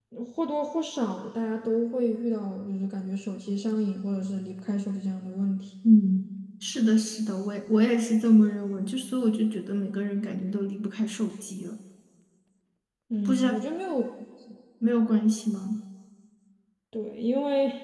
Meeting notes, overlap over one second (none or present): none